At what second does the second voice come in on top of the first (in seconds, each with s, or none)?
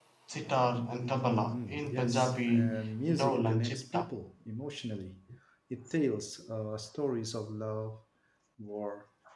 1.5 s